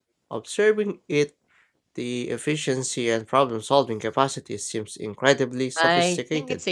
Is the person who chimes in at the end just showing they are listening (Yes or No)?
No